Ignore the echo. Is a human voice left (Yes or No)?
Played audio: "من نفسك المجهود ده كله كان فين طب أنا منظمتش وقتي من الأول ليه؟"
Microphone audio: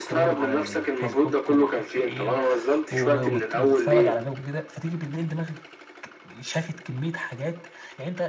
Yes